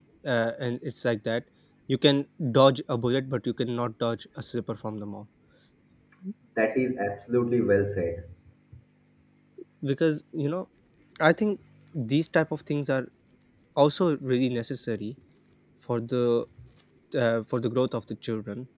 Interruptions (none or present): none